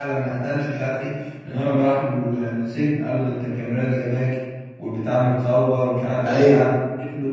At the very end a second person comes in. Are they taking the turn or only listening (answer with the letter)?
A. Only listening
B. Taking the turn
A